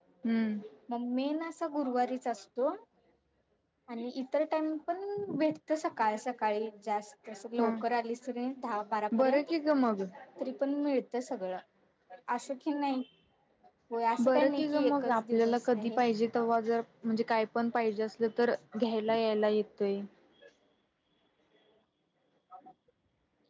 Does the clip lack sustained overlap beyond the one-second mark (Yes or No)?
No